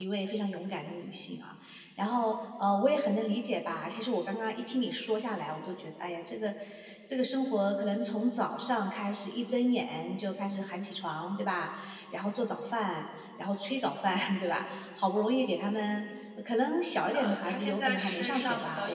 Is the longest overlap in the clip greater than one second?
Yes, from 17.1 s

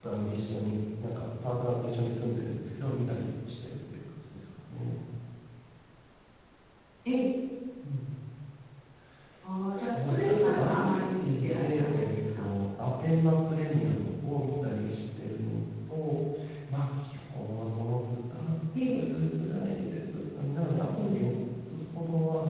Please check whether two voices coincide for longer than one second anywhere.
Yes, from 9.8 s

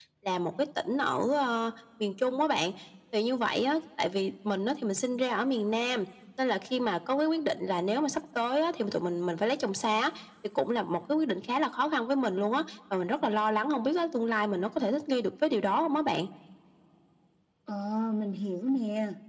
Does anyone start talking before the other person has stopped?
No

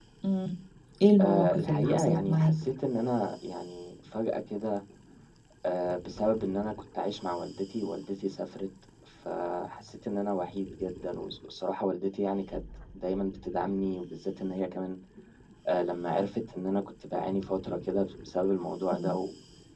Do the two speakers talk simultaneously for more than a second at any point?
Yes, from 1.2 s

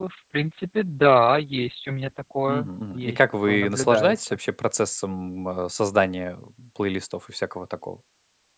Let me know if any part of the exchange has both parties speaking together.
Yes, from 2.5 s

